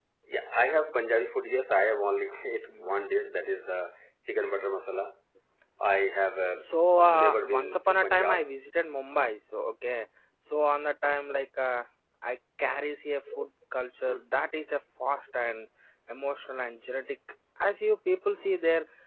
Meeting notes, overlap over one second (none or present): present